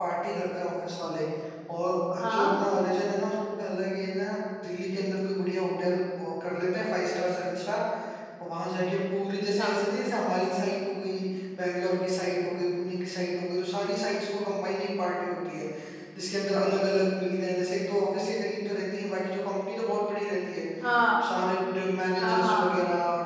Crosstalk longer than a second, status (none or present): none